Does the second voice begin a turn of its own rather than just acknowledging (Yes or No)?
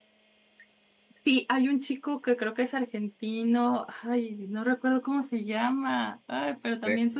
No